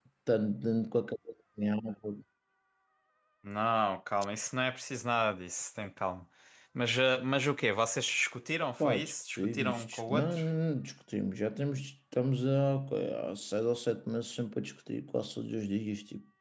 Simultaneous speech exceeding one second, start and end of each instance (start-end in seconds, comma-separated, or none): 8.8-10.4